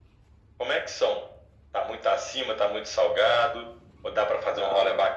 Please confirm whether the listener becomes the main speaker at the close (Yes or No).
No